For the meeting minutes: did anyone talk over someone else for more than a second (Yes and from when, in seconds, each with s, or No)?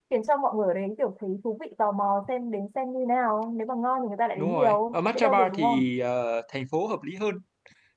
Yes, from 4.4 s